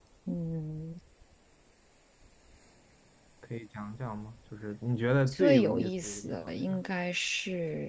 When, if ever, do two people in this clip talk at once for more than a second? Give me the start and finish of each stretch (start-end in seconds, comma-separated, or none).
5.3-6.8